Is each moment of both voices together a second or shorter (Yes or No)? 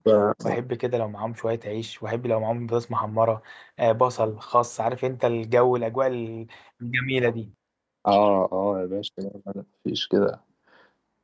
Yes